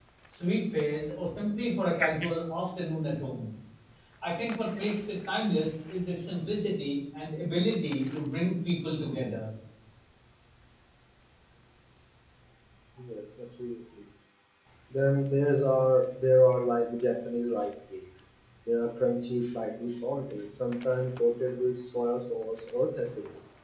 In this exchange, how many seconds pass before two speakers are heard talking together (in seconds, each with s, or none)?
none